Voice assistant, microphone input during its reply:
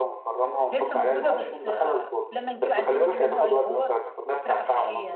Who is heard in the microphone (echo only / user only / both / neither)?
both